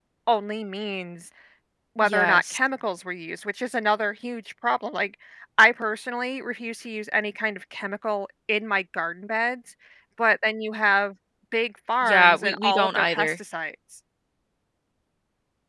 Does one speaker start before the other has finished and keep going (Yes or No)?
Yes